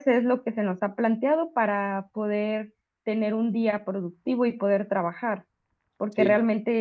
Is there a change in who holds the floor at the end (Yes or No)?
No